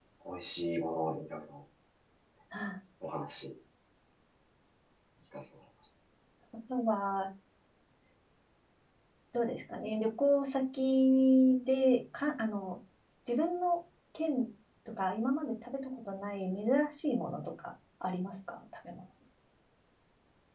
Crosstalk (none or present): none